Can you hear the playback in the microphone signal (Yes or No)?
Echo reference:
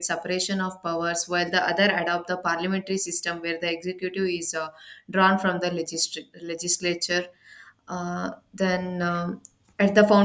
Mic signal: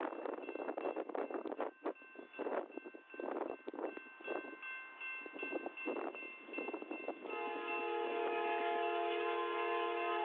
No